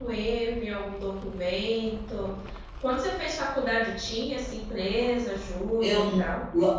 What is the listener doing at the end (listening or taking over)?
taking over